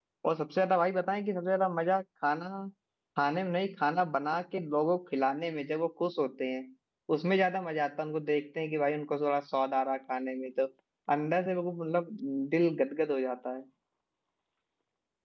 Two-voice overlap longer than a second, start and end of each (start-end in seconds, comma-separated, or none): none